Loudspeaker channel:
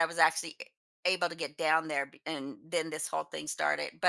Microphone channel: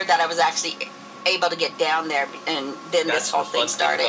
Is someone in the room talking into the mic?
Yes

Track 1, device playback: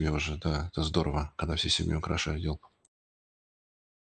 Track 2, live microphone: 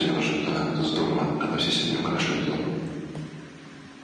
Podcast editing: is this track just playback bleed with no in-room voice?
Yes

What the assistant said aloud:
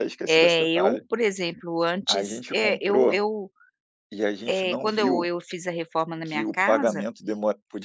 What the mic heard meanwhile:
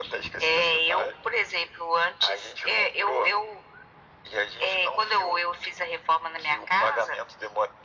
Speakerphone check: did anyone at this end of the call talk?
No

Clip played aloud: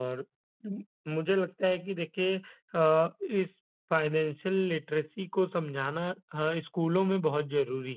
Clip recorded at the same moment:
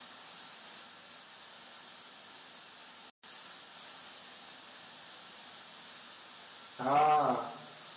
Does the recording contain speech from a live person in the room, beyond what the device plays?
Yes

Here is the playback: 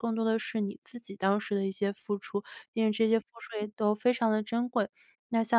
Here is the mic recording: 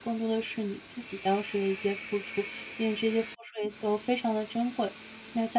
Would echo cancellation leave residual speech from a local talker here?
No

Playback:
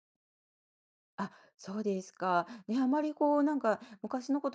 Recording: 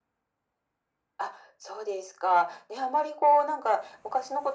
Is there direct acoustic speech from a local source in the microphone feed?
No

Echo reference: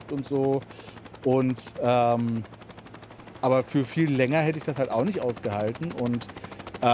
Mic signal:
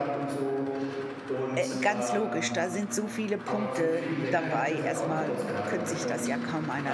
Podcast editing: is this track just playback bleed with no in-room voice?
No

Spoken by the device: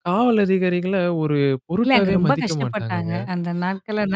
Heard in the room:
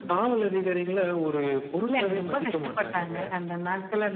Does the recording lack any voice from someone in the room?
Yes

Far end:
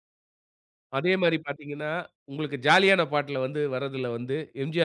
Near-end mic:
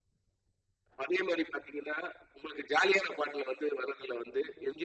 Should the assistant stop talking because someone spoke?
No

